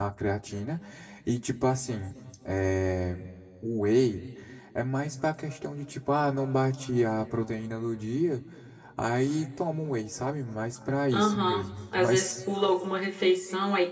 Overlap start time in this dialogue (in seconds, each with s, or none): 11.1 s